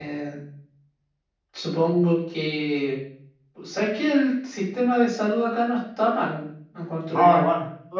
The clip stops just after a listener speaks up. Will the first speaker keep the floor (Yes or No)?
No